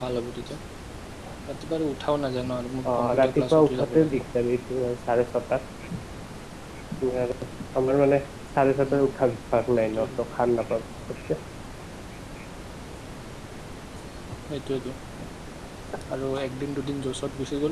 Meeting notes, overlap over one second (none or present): present